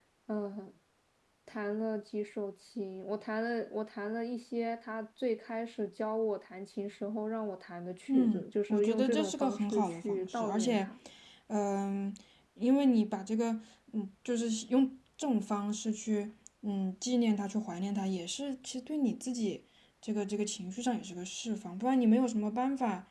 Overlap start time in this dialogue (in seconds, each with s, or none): 8.1 s